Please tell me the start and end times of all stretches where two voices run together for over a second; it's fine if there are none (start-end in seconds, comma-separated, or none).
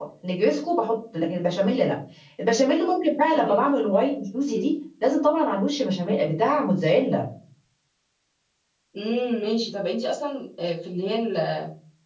none